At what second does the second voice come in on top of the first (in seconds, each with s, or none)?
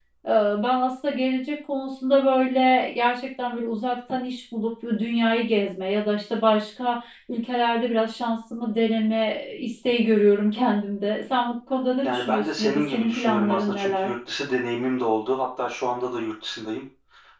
12.0 s